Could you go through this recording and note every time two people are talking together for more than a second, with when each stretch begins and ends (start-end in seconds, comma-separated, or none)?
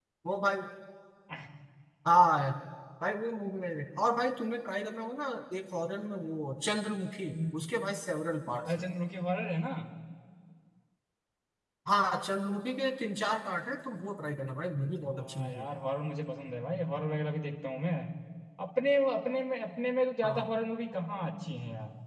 none